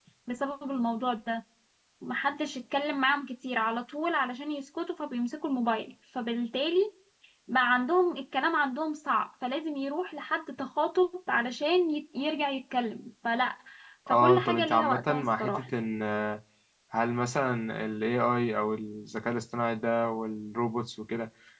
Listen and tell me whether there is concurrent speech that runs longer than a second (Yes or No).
Yes